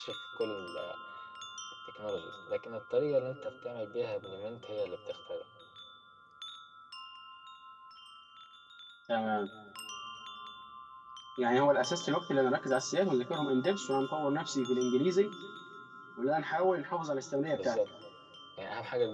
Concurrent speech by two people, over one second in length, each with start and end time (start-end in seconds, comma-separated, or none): none